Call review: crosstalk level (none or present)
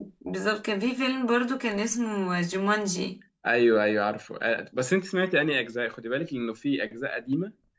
none